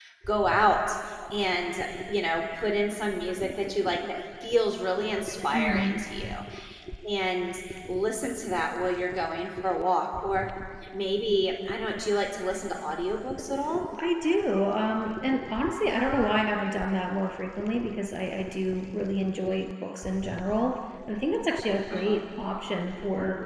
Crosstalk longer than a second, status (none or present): none